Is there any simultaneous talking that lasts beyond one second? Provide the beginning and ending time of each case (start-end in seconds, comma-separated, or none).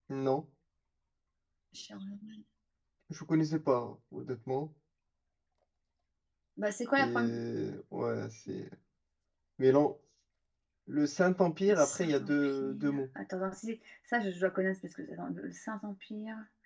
11.7-13.0